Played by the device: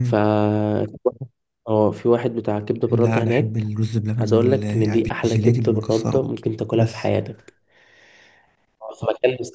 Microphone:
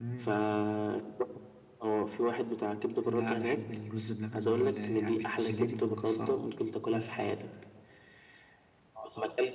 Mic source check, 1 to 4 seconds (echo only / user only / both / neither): echo only